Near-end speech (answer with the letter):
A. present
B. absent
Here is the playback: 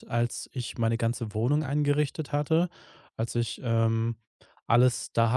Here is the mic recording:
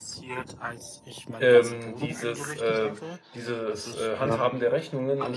A